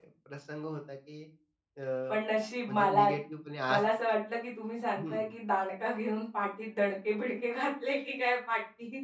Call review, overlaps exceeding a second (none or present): none